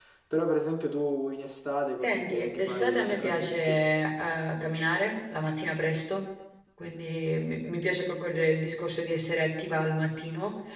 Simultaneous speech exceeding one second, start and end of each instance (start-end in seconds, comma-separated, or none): 2.0-3.8